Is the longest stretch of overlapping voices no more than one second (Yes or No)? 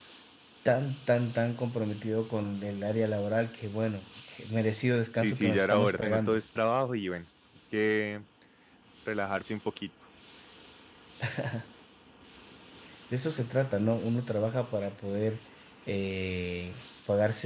No